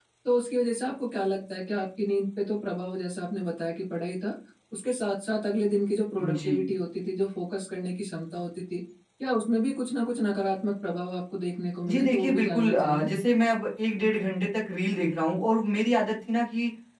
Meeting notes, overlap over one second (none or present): present